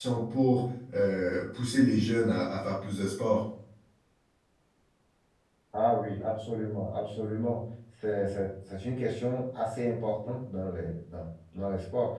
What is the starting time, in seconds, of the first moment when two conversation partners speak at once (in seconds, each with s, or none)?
none